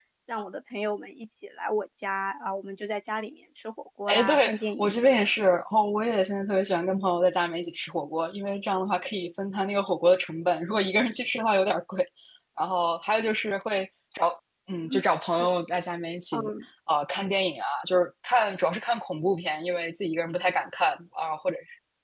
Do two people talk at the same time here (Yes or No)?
Yes